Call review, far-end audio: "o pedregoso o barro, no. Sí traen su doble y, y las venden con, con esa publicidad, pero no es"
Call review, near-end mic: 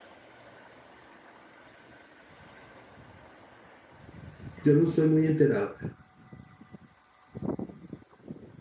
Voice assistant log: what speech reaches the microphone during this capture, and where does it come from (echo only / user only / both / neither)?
user only